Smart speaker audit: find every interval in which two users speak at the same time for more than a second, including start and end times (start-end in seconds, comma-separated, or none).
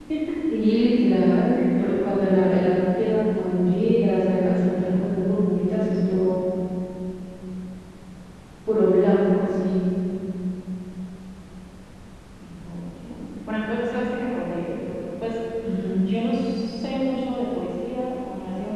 1.5-2.9